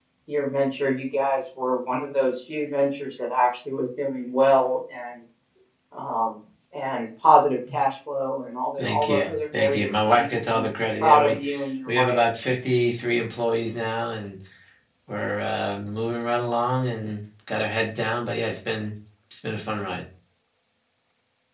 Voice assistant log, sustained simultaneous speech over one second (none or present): present